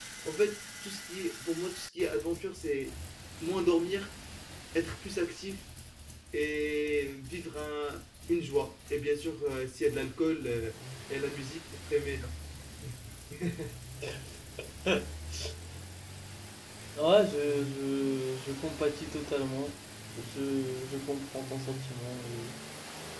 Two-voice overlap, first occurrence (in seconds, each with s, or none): none